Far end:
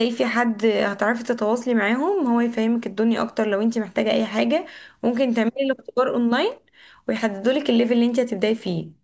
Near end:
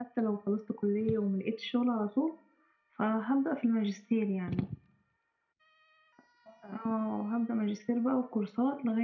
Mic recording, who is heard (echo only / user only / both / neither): user only